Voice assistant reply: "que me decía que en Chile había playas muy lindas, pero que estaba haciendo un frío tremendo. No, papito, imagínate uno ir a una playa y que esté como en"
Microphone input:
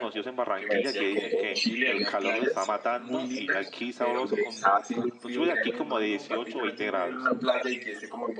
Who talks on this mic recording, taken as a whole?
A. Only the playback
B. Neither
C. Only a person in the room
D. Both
D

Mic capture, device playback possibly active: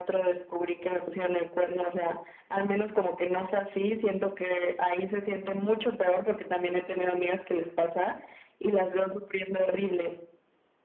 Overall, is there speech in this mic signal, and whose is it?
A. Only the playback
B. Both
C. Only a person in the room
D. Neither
A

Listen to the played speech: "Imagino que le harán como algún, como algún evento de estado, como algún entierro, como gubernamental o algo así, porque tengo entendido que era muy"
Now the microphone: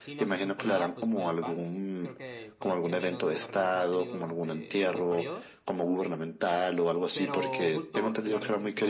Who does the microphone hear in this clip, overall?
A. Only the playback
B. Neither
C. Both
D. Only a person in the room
C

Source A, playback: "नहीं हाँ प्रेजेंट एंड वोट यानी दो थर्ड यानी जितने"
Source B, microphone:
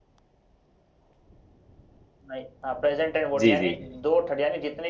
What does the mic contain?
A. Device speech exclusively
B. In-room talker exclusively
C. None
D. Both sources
D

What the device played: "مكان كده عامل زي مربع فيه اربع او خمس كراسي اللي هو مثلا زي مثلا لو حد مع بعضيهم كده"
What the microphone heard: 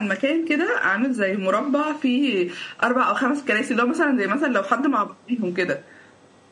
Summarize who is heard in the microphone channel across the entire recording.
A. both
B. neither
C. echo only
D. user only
C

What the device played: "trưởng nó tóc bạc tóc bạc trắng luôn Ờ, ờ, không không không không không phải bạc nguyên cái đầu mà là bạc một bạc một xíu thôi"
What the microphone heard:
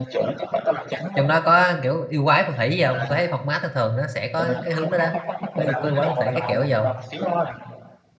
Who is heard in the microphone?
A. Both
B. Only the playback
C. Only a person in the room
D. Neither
A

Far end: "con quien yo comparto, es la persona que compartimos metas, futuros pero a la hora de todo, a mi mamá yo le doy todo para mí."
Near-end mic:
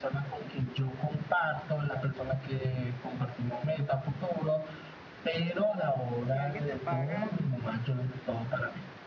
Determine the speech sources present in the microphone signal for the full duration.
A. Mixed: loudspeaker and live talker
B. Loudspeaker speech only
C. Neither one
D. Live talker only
A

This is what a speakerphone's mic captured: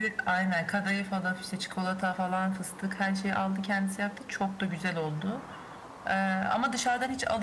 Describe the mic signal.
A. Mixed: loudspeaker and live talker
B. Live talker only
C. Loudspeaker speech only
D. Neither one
C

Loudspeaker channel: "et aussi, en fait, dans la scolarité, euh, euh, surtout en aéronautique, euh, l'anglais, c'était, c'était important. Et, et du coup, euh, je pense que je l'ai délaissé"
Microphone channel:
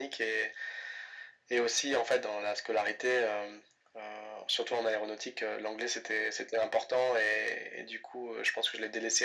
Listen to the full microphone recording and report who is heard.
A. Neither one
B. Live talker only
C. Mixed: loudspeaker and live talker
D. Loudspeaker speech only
D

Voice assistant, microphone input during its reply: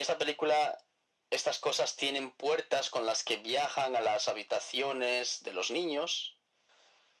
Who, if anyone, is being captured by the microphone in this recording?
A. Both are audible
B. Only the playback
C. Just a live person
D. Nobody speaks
B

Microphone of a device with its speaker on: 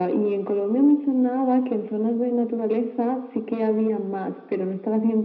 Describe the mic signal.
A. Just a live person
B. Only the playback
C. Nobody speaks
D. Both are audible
B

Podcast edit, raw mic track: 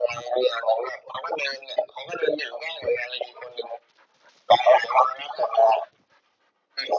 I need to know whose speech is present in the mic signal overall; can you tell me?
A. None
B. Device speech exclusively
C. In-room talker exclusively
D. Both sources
B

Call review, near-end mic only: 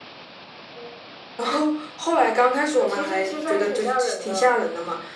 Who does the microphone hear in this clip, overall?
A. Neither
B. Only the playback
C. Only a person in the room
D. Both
B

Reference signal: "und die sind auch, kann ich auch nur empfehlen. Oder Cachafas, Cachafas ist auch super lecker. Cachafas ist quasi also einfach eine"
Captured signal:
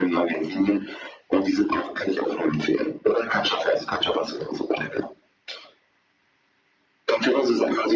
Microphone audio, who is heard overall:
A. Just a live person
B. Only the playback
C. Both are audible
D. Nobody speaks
B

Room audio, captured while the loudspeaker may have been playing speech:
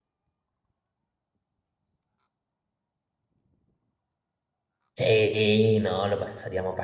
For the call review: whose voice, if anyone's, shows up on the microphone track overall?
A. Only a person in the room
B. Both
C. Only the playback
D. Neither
A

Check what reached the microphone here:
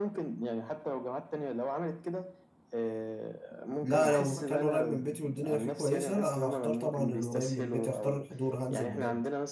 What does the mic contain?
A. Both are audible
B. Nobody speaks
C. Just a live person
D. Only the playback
A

